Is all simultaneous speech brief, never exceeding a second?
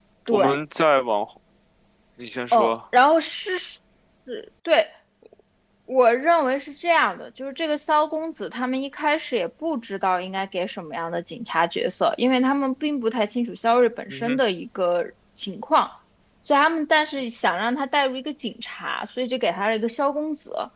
Yes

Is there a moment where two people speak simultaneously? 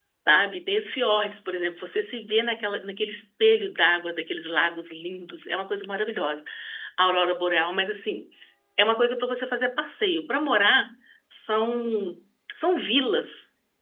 No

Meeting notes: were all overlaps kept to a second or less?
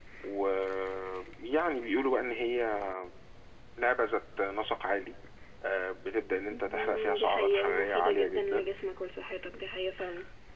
No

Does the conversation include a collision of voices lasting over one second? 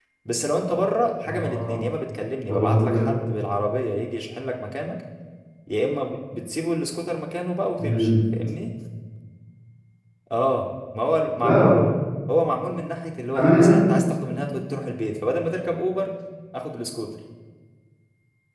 No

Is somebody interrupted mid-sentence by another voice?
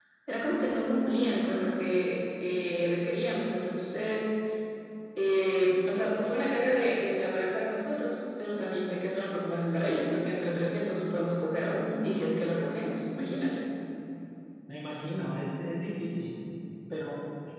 No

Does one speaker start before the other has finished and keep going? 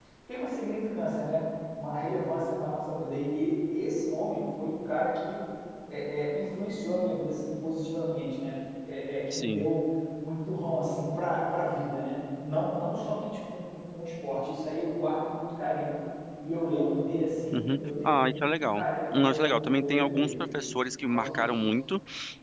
Yes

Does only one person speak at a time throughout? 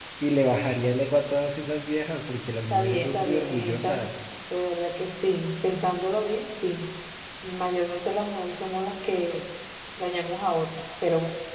No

